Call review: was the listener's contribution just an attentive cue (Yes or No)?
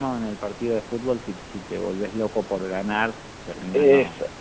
No